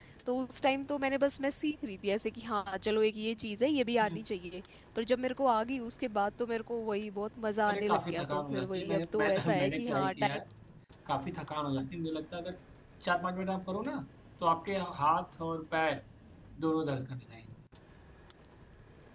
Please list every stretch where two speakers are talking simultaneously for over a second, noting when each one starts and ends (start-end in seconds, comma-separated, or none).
7.7-10.4